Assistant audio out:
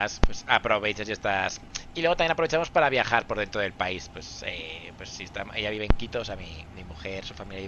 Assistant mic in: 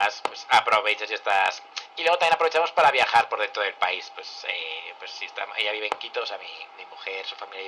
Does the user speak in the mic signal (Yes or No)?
No